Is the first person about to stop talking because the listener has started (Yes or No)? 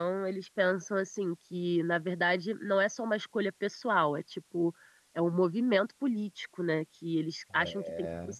No